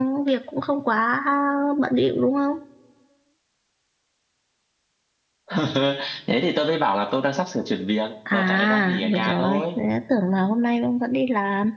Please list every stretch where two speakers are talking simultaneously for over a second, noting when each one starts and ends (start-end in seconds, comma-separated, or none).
8.3-9.8